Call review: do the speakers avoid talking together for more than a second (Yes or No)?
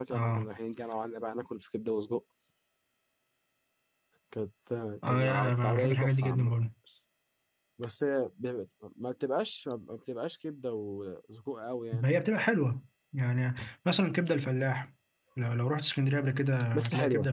No